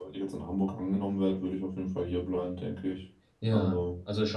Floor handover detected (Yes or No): Yes